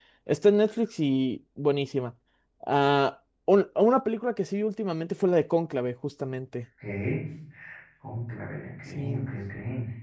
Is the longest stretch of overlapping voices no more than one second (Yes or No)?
Yes